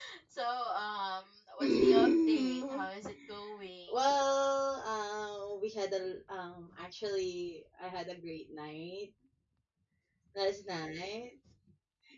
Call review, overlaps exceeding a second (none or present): present